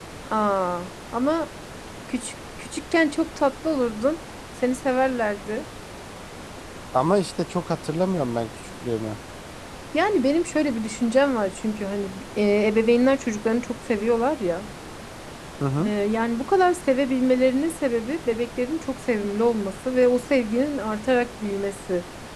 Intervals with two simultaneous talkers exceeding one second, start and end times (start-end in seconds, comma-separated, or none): none